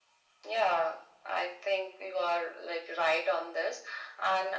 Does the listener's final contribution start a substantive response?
No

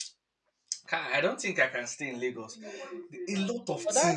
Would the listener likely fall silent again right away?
No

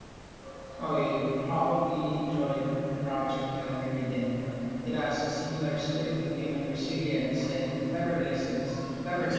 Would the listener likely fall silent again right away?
No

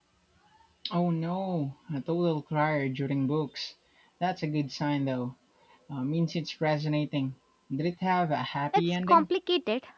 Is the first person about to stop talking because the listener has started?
Yes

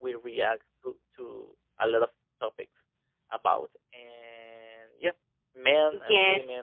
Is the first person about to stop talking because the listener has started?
Yes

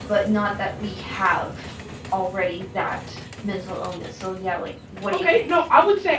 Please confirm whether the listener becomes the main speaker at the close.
Yes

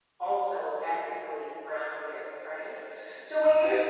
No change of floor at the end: Yes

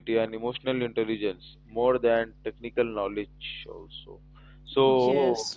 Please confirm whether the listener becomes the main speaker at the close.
No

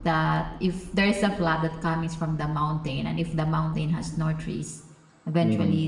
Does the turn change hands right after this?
No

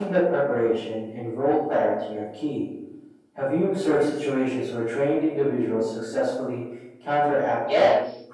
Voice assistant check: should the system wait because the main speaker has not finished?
No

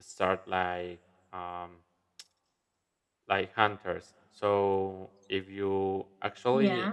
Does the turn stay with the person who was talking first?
Yes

